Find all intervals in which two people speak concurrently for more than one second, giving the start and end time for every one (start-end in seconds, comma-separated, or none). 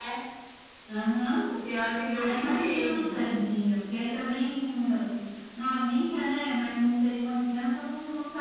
2.1-3.4